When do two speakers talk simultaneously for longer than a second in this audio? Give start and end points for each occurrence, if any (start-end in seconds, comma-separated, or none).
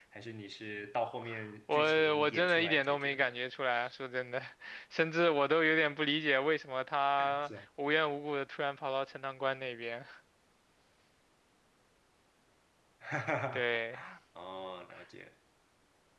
1.7-3.4